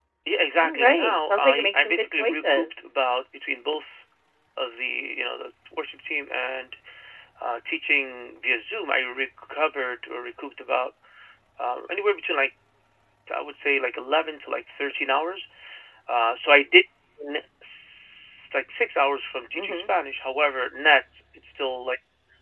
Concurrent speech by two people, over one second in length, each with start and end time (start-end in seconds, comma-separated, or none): 0.6-2.9